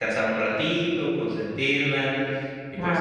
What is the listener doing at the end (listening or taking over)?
listening